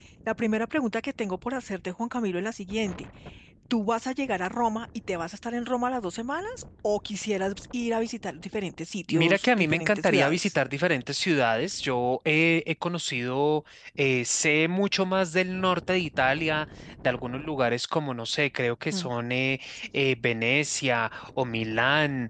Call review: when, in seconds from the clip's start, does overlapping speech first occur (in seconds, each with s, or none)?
9.1 s